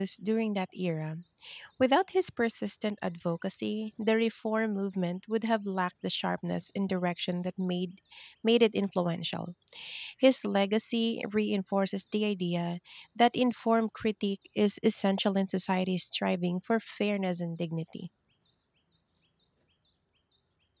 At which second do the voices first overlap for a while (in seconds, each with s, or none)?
none